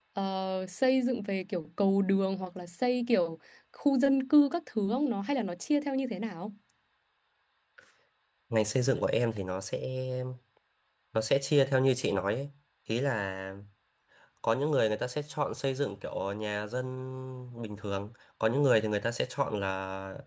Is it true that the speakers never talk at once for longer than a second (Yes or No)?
Yes